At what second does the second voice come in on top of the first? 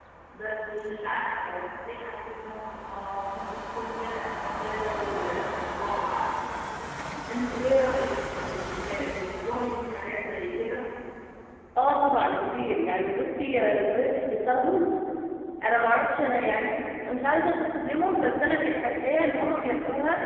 none

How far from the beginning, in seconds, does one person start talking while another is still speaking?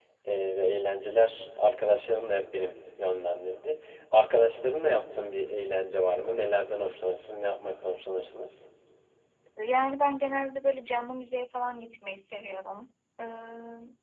none

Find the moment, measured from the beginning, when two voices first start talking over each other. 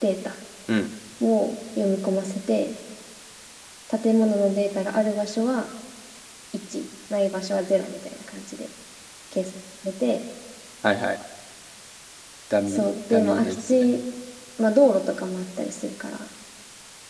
12.7 s

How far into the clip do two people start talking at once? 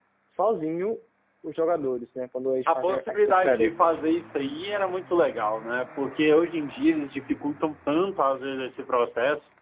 2.7 s

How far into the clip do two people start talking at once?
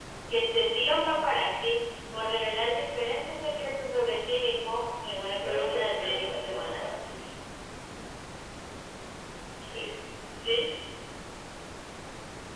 5.4 s

